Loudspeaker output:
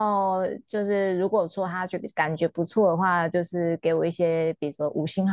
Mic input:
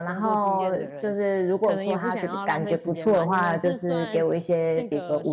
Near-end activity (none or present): present